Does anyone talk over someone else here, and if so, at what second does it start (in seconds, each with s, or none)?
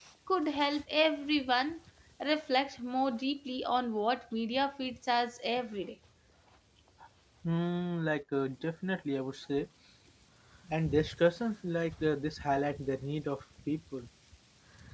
none